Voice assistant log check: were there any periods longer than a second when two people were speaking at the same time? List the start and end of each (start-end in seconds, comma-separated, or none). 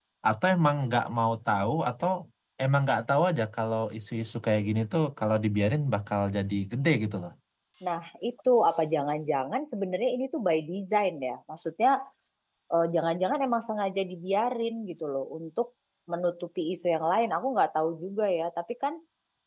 none